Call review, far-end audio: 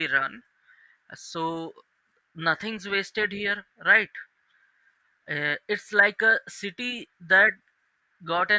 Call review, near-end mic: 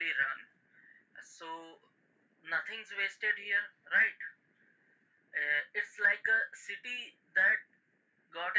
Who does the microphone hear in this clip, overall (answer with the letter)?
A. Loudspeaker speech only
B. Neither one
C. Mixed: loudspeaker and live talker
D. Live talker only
A